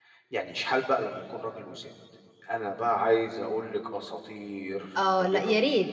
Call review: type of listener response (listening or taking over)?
taking over